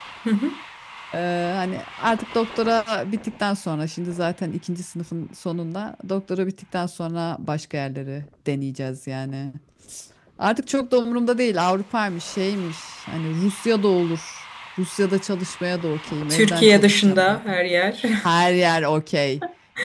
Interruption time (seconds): 16.3 s

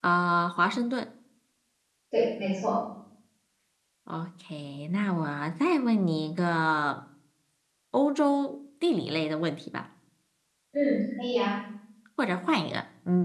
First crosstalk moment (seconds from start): none

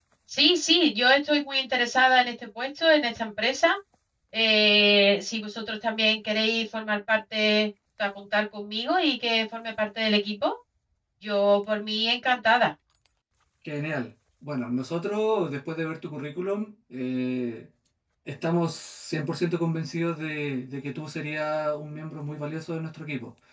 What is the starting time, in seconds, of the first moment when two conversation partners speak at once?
none

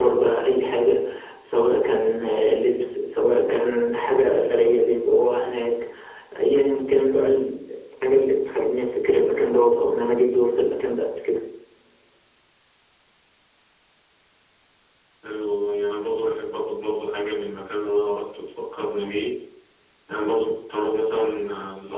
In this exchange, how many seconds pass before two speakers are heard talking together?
none

